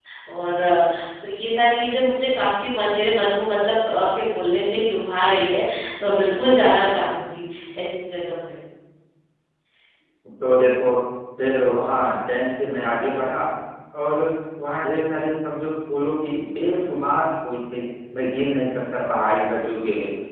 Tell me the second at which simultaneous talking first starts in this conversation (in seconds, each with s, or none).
none